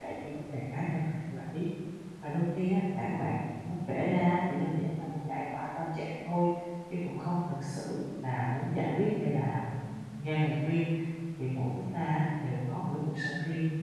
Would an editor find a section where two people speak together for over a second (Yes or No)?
No